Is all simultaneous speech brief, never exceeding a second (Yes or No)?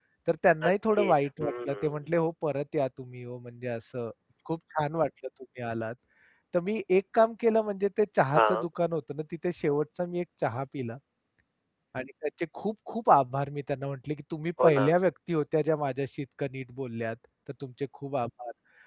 No